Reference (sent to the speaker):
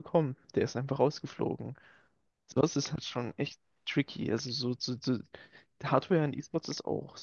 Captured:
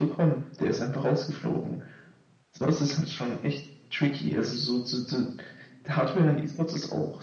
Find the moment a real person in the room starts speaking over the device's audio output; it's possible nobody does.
none

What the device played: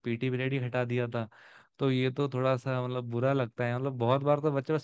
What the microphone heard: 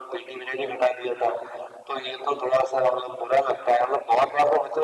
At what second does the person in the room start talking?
none

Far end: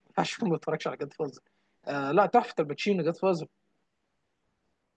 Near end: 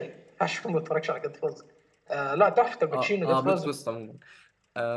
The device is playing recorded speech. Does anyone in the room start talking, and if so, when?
2.9 s

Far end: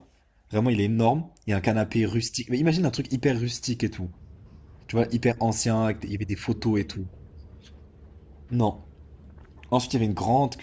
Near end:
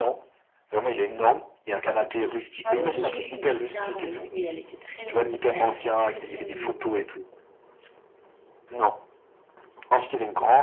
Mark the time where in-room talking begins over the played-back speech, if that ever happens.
2.6 s

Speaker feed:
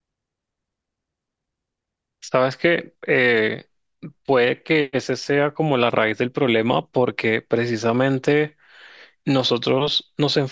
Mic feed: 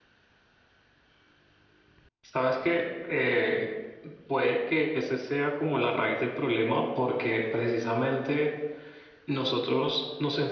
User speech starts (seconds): none

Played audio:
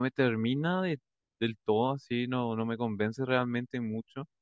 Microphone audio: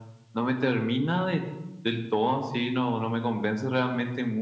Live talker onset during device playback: none

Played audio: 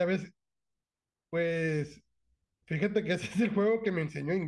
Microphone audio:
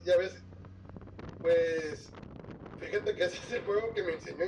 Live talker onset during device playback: none

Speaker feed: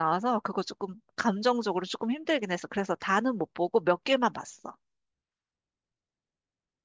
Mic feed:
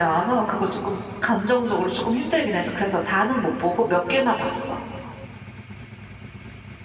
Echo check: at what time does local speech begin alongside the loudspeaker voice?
none

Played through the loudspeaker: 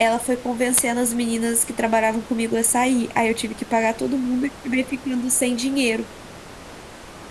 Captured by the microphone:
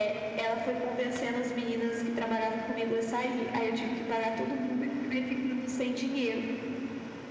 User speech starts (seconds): none

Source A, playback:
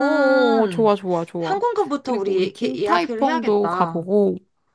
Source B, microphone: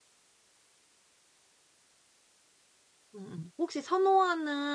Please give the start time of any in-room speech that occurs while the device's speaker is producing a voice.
3.2 s

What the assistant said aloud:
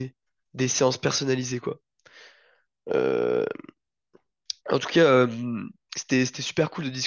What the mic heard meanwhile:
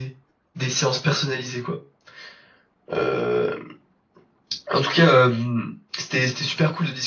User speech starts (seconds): none

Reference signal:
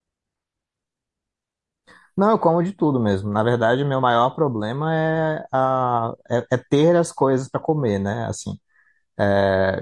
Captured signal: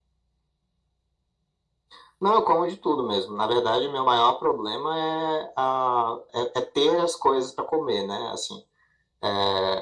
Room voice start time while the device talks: none

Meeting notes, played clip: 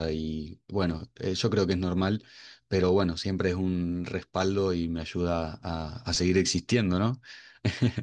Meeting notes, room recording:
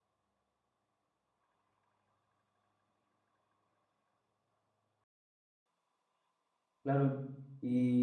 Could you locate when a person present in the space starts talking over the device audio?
6.8 s

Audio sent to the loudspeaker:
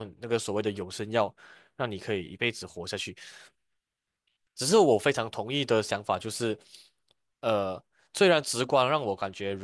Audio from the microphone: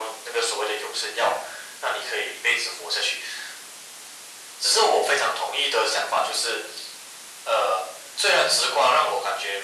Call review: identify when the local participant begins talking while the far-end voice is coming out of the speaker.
none

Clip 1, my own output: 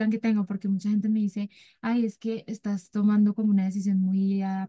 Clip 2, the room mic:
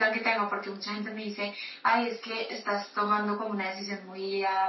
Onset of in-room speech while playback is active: none

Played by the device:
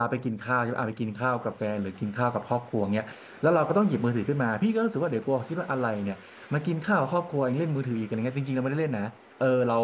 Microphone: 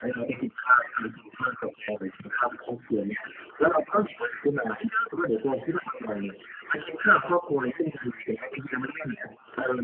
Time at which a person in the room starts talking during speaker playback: none

